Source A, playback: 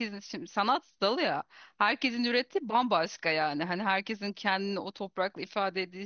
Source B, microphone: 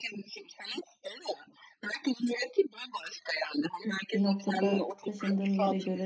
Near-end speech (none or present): present